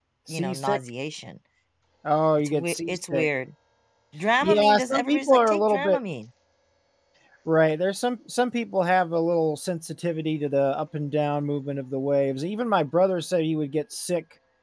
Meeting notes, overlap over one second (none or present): present